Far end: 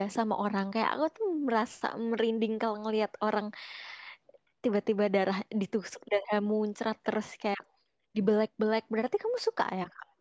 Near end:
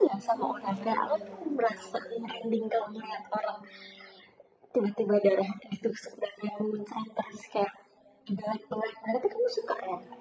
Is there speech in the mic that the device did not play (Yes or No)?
Yes